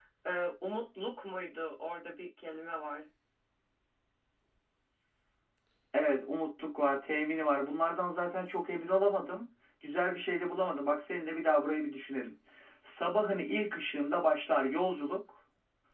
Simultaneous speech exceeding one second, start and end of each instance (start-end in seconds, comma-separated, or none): none